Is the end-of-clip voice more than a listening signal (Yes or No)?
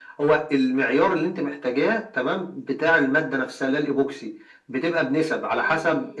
No